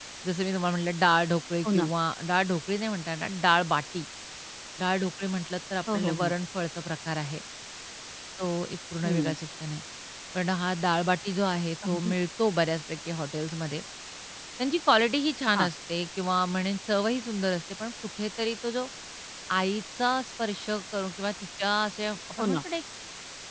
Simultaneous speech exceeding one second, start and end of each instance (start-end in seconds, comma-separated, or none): none